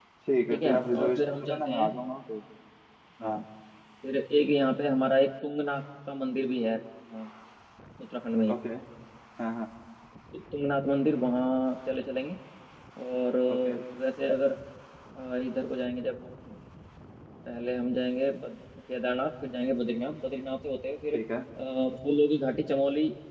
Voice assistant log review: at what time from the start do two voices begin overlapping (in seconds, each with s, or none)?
0.5 s